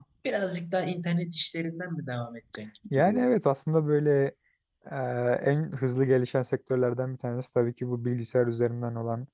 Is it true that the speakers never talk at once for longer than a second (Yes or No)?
Yes